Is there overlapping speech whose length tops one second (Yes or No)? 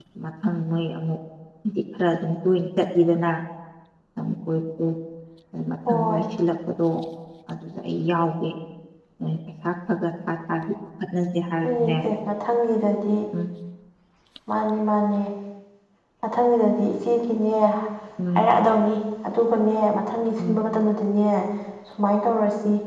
No